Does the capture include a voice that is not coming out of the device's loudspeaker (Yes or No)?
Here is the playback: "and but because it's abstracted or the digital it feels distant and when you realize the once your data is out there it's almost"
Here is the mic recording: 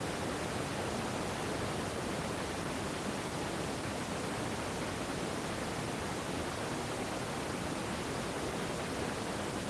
No